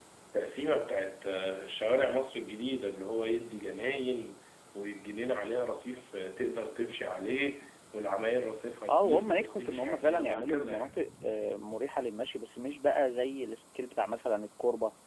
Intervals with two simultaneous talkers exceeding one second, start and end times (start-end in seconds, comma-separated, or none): 8.9-10.9